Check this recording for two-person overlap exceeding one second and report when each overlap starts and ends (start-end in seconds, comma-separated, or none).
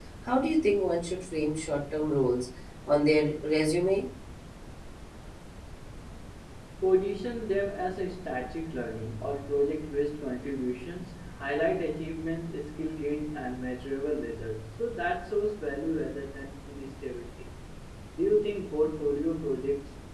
none